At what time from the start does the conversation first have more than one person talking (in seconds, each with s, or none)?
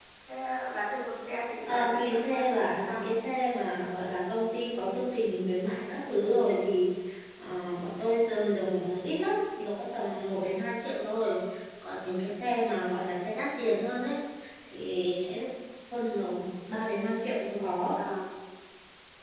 1.6 s